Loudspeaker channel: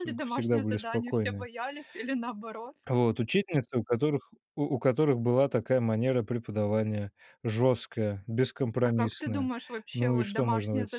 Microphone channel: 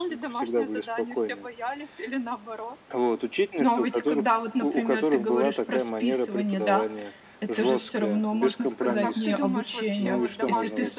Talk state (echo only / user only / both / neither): both